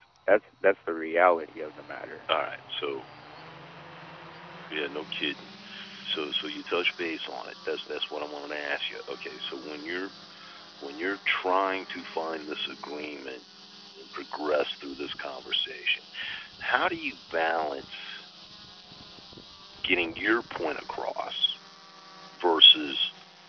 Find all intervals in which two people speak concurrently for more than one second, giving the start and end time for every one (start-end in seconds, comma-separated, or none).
none